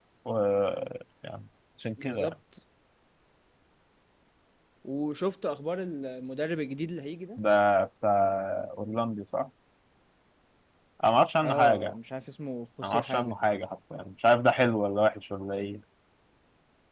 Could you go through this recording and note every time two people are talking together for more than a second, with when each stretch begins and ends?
none

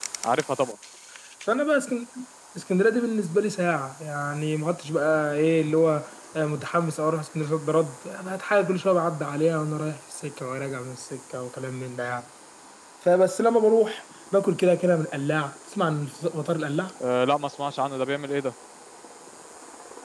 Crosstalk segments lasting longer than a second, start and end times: none

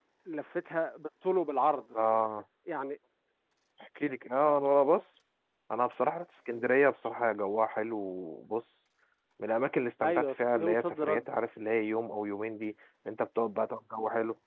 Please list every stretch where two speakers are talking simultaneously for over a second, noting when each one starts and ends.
10.0-11.2

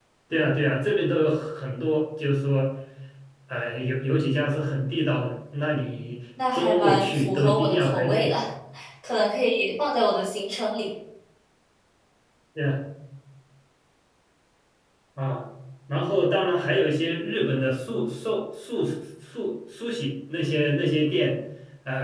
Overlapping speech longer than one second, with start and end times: 6.5-8.4

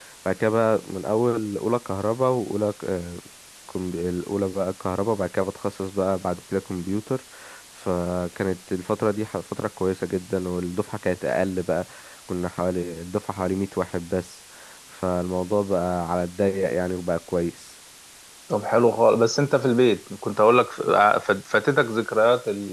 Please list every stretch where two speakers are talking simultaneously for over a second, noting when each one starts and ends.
none

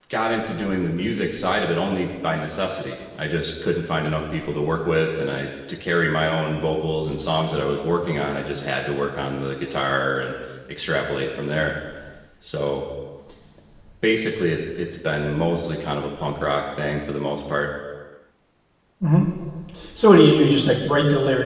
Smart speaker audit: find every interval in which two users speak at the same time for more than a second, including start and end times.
none

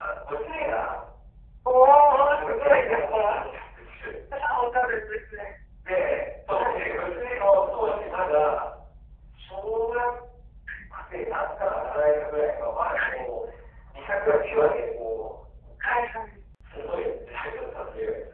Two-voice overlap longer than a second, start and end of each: 2.0-3.5

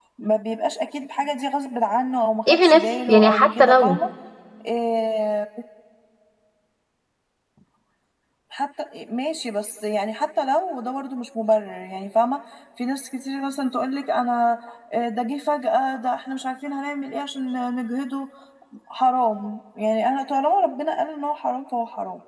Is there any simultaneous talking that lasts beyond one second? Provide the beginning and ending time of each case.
2.5-4.0

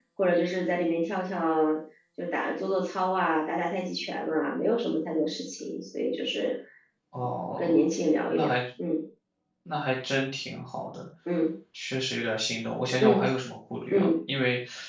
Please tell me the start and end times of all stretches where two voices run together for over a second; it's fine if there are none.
none

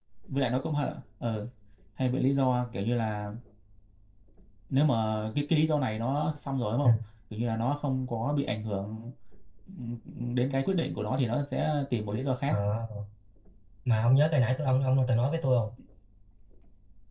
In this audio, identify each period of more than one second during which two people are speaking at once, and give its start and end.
none

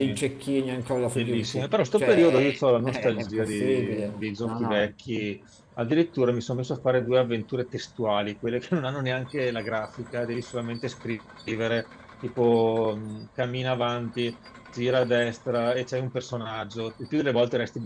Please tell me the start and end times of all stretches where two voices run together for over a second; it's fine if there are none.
1.1-2.4, 2.9-4.9

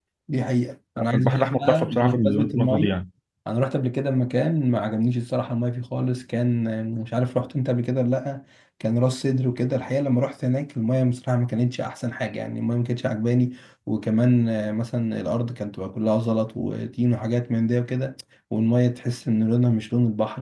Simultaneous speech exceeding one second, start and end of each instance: 1.0-2.9

